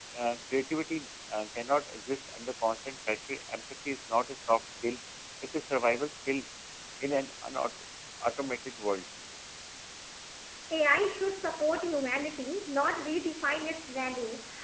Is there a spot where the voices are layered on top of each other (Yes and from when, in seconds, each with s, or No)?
No